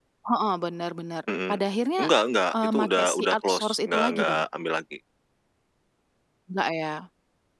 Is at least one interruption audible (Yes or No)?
Yes